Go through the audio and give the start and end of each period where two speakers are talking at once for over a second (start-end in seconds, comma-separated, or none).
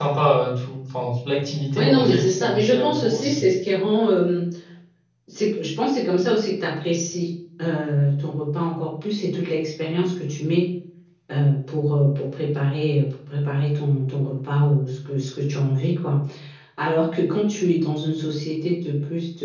1.8-3.4